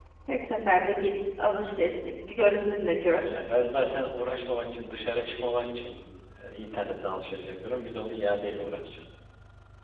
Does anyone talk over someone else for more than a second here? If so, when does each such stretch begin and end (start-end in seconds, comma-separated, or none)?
none